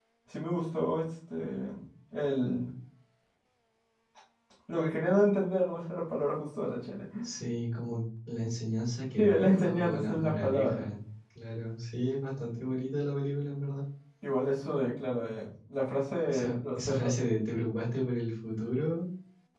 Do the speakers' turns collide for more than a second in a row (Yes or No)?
Yes